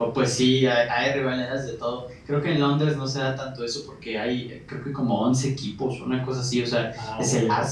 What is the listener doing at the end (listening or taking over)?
listening